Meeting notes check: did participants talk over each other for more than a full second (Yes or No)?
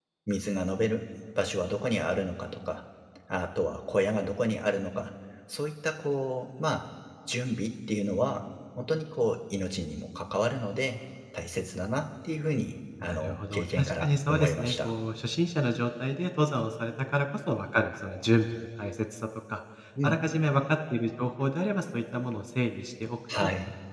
Yes